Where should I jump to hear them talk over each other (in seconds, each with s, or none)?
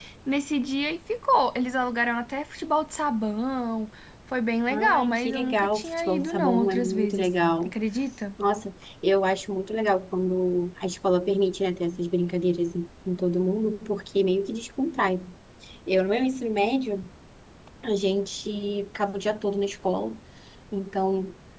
4.7 s